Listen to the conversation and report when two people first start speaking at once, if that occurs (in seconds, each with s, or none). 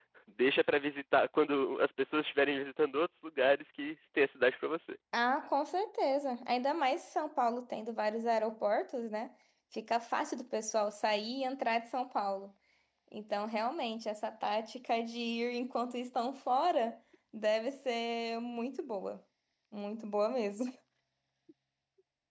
none